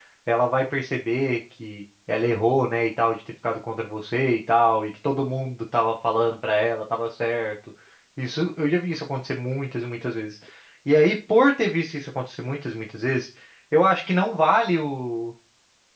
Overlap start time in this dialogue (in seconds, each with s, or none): none